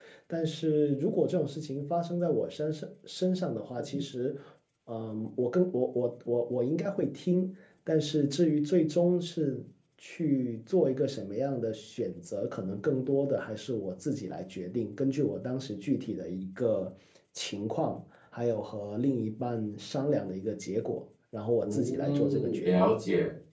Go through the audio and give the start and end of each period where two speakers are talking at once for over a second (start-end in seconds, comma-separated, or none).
21.6-22.9